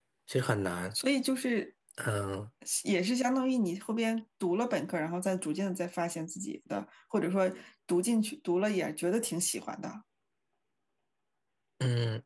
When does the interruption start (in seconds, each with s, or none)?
none